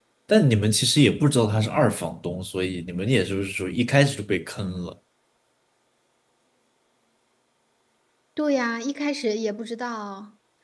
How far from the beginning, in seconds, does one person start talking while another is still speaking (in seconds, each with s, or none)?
none